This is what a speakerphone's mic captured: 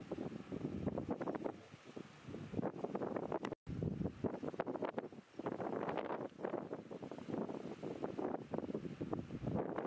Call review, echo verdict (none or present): none